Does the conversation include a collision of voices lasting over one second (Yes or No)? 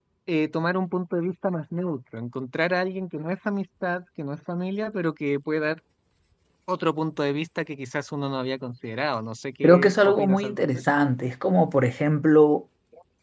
Yes